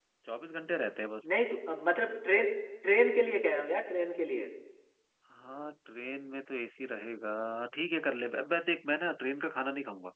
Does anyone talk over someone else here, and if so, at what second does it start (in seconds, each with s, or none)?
none